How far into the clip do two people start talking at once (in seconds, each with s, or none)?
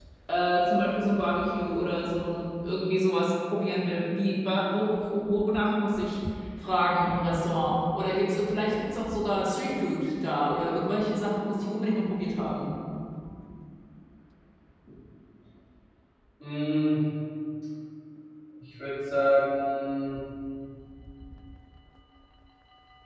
none